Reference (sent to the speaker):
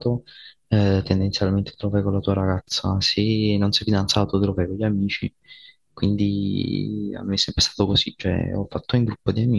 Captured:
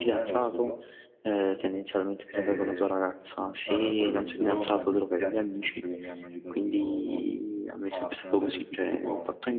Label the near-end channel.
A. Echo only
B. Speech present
B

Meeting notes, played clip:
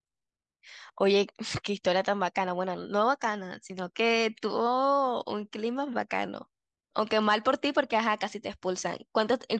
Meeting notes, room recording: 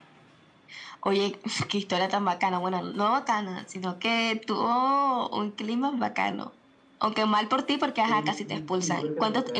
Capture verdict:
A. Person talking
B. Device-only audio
A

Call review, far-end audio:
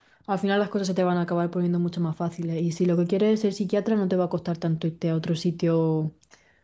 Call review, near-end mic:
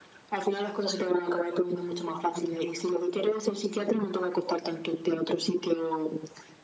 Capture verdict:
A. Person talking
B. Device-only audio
B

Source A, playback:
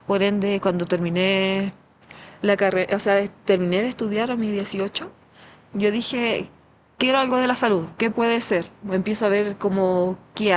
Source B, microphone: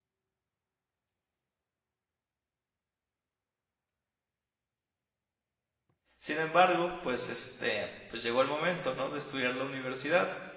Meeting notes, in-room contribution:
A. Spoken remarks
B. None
A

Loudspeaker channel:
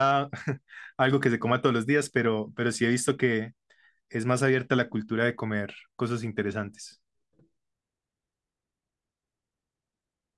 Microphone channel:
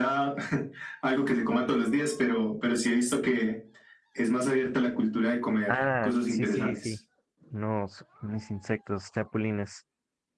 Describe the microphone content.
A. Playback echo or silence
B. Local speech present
B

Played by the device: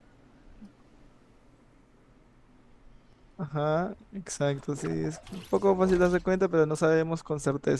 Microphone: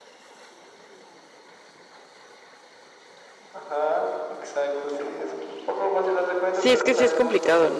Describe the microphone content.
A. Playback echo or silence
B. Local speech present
B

